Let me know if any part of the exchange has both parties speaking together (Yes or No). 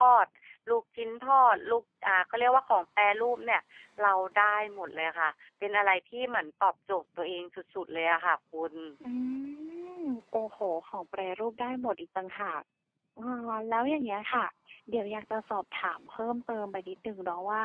No